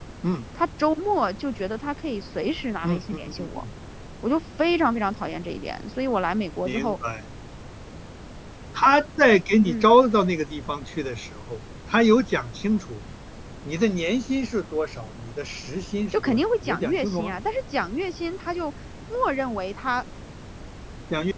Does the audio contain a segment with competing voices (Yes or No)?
Yes